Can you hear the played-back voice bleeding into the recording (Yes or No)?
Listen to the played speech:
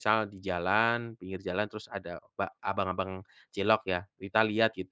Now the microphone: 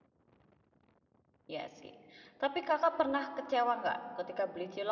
No